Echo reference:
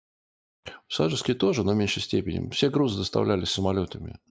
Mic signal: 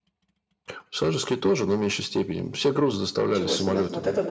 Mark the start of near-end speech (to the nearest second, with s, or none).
3 s